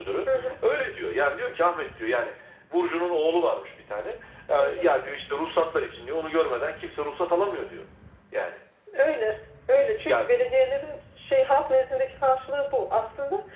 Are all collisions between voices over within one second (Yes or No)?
Yes